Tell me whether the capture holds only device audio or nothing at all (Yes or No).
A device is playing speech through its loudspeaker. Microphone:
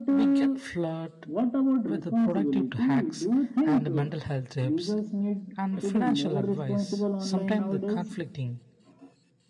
No